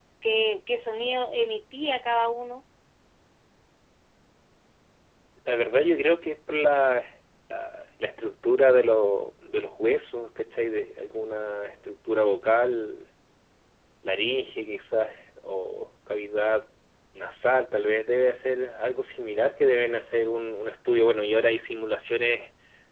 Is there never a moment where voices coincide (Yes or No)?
Yes